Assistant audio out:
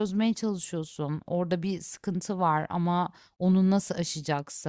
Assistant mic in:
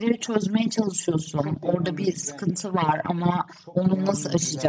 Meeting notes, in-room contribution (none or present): present